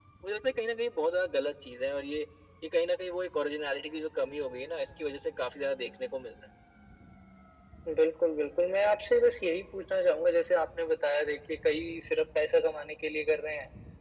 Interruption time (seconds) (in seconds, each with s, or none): none